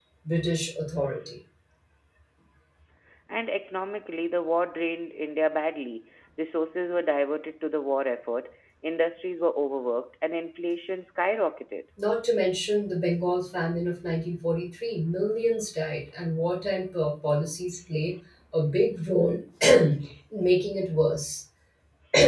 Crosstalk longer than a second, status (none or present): none